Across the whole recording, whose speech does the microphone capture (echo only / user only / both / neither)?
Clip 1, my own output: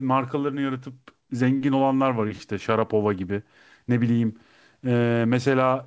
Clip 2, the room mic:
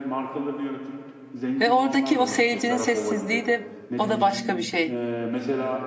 both